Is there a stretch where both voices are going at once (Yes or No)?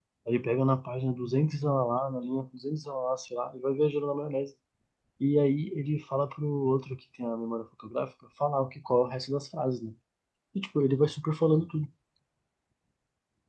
No